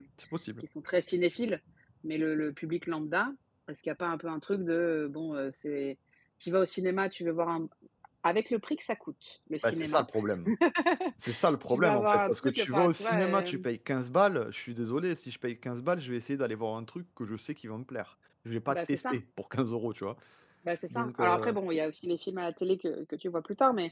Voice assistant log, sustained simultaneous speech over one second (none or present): present